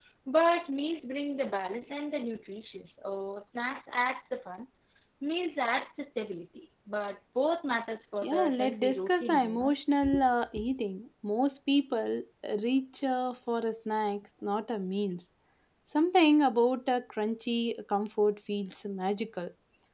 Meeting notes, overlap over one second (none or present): present